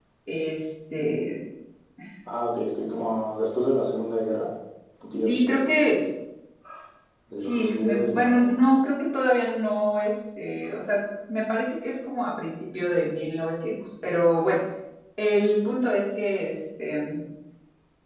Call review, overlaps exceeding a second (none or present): present